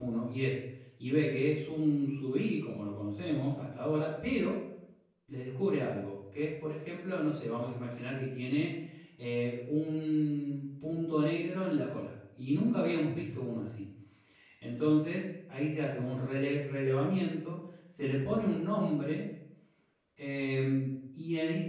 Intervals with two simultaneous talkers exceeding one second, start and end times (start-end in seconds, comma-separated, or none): none